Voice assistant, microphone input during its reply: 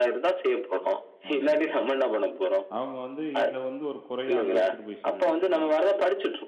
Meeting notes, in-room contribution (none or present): present